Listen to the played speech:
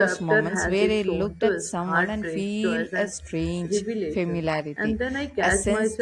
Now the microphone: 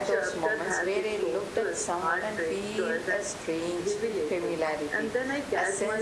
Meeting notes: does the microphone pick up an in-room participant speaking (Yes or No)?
No